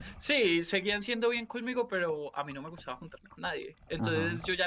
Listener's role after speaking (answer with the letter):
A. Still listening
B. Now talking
A